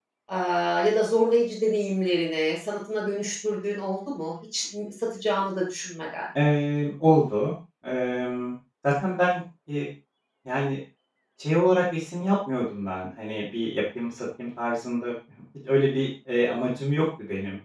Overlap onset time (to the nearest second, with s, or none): none